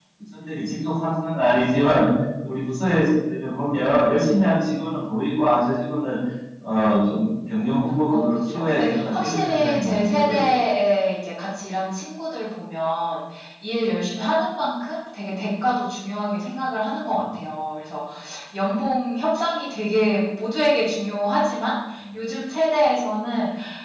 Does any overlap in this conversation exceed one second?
Yes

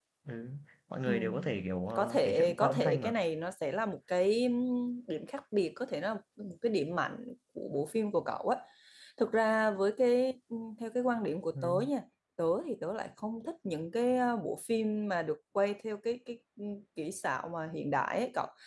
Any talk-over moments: Yes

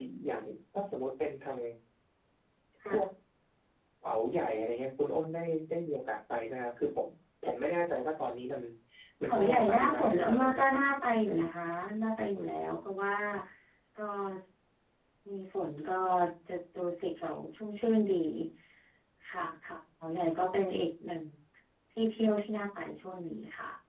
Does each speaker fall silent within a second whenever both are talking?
No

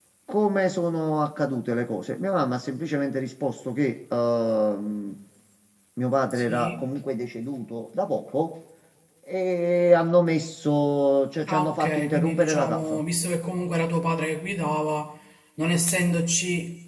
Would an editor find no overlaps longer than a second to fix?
No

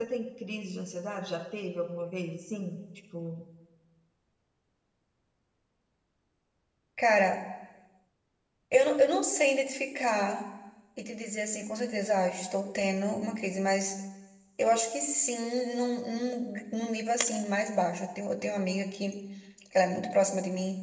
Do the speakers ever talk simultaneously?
No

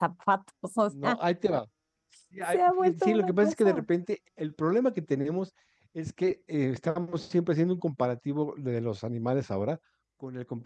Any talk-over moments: Yes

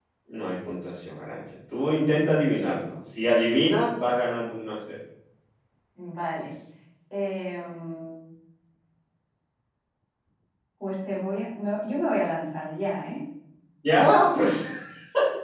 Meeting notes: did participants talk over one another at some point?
No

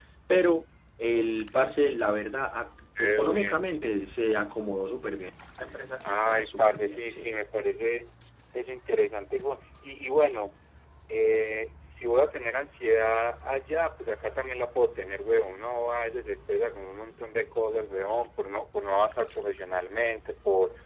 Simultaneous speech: Yes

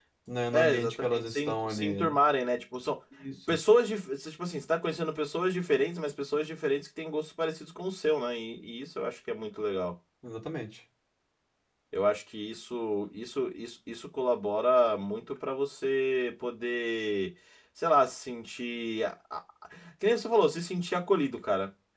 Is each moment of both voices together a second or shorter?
No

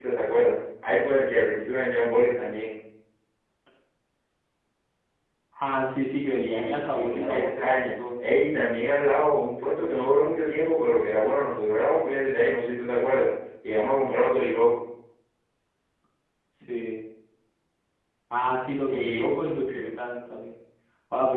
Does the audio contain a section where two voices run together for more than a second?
Yes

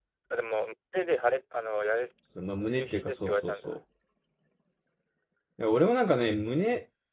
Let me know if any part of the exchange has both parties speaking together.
Yes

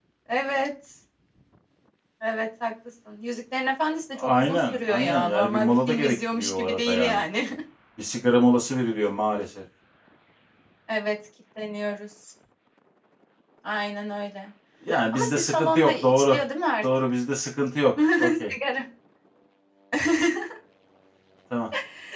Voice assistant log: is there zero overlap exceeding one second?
No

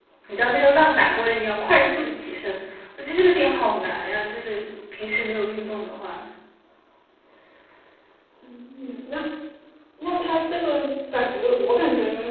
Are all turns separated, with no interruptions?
Yes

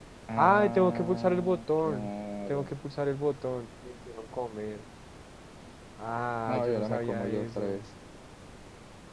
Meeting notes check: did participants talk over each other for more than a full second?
Yes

